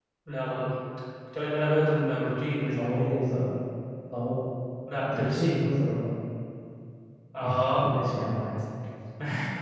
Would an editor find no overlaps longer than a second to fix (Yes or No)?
Yes